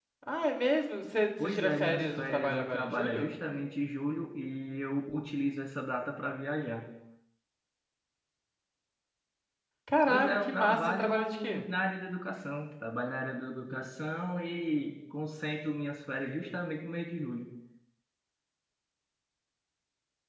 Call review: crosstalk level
present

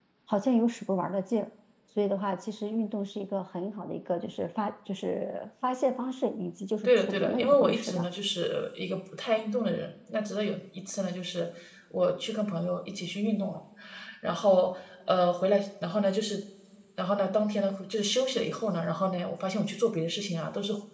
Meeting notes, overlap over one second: present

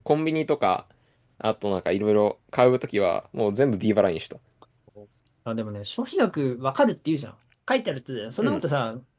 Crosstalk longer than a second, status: none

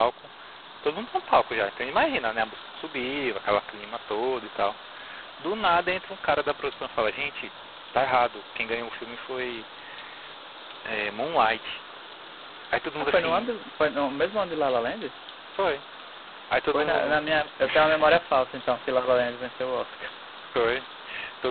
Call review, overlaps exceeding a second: none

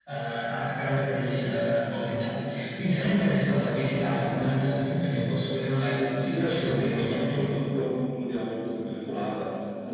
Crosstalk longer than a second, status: present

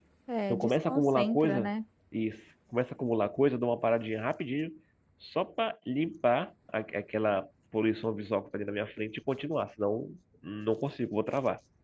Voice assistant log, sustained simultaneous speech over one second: present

